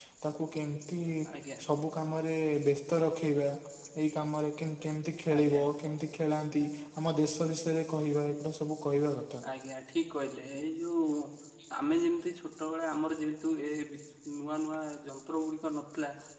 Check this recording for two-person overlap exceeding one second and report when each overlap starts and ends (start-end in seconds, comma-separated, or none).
none